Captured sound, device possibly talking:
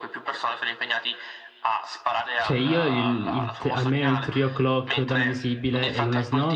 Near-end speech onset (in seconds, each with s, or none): 2.4 s